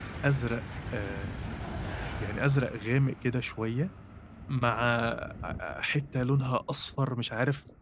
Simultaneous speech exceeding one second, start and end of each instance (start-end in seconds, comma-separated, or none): none